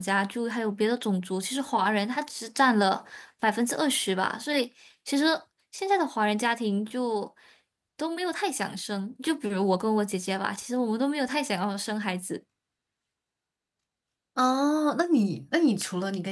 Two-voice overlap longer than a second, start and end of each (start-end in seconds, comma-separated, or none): none